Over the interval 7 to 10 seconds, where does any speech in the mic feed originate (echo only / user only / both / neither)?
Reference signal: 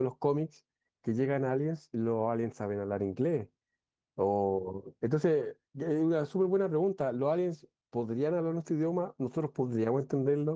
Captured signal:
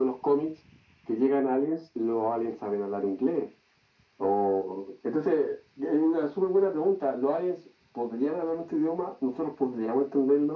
echo only